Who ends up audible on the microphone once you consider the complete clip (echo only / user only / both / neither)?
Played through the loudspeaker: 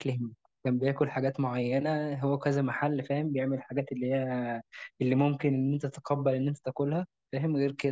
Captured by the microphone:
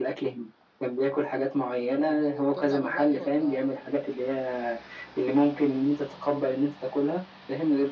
both